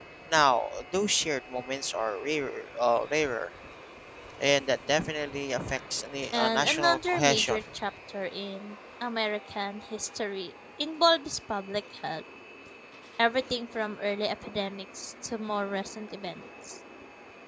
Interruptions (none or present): present